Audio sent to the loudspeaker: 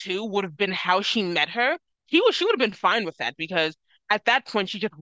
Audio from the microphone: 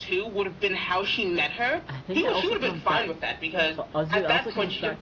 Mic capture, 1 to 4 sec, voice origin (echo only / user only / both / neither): both